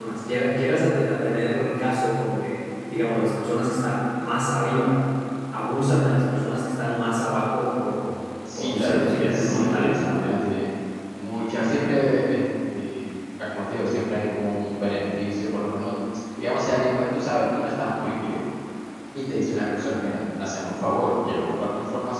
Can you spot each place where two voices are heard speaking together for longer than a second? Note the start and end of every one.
8.6-10.0

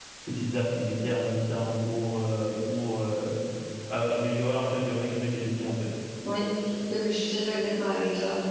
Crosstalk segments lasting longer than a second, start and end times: none

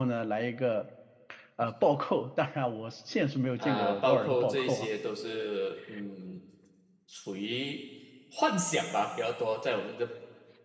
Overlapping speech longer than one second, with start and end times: 3.6-4.9

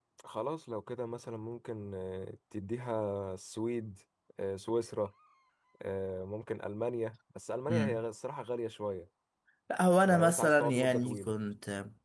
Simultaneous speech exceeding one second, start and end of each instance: 10.1-11.3

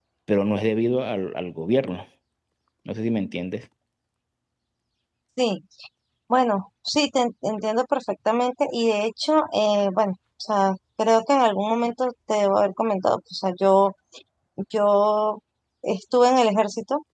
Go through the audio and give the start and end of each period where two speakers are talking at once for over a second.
none

